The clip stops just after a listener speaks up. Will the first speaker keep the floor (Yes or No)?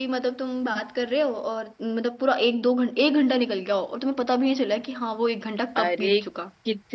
No